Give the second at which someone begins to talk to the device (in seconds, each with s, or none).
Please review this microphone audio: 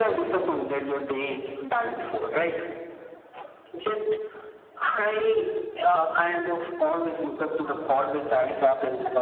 none